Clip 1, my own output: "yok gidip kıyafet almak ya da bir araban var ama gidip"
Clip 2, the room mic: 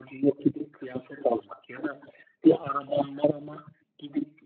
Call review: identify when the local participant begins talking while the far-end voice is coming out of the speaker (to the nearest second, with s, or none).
none